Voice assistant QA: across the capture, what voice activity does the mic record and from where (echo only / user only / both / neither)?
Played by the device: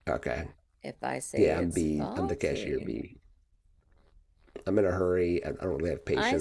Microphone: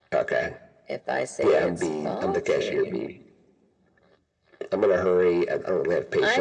echo only